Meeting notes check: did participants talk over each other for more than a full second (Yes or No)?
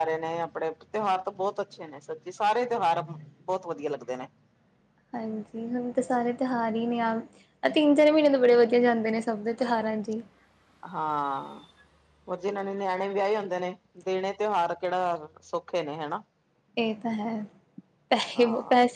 No